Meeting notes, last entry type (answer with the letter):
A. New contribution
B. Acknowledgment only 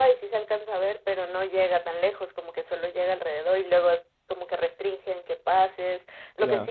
B